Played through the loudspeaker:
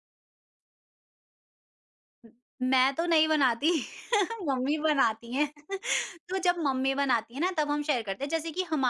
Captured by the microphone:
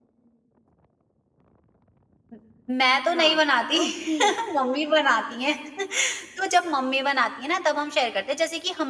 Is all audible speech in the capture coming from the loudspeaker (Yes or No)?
No